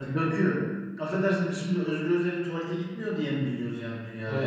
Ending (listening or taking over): listening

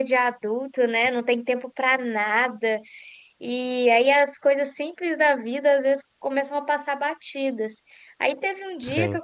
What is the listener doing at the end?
listening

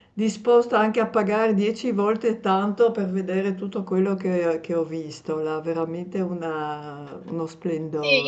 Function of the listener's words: taking over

